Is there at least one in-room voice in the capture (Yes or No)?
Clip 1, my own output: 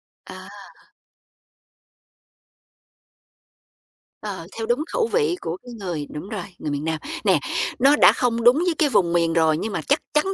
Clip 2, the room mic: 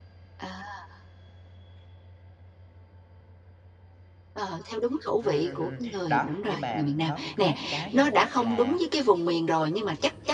Yes